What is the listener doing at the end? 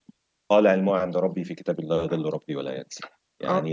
listening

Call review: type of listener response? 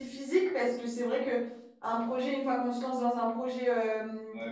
taking over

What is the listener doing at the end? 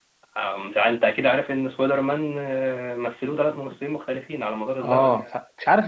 taking over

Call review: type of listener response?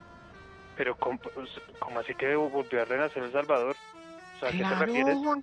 taking over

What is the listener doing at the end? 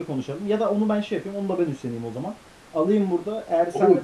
taking over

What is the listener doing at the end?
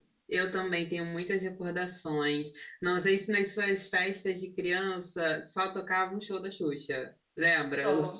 listening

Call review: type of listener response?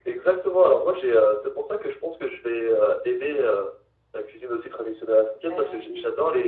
listening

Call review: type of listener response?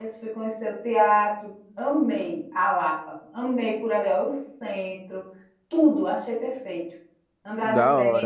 taking over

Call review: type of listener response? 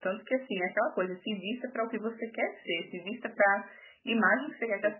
listening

